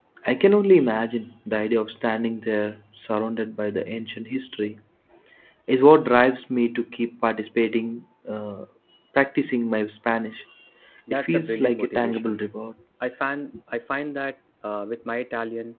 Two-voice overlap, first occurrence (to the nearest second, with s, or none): 11 s